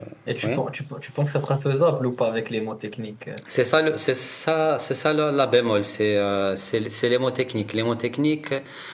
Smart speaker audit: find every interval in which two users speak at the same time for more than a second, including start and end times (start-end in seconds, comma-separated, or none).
none